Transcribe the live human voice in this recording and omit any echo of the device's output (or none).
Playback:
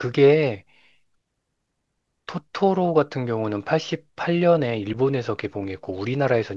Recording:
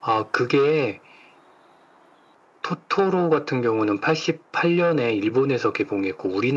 none